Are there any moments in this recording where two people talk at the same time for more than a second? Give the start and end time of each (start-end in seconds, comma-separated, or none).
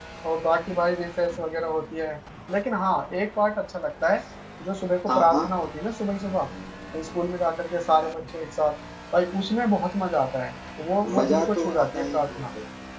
11.2-12.4